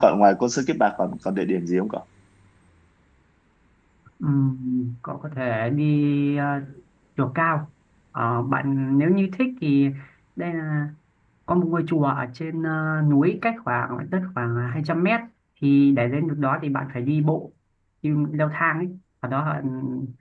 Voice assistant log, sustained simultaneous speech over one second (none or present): none